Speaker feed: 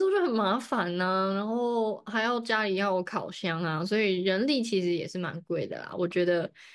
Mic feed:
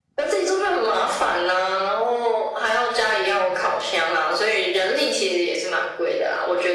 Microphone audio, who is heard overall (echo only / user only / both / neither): echo only